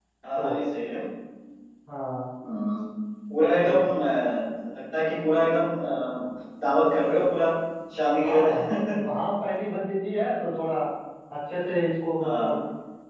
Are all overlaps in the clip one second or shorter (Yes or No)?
Yes